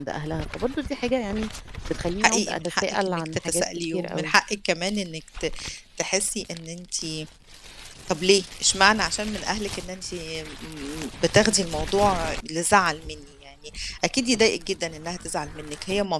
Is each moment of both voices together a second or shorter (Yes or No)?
No